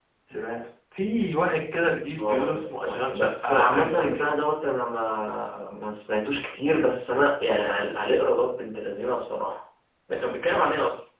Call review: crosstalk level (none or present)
present